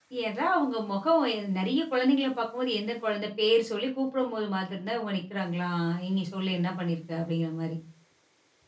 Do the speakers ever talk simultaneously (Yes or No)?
No